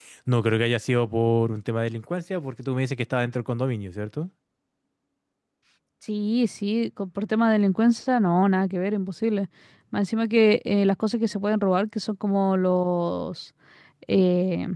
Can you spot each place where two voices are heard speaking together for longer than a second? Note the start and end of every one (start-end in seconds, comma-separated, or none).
none